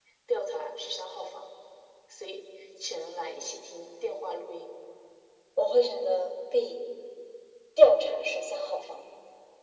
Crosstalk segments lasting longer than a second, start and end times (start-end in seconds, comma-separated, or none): none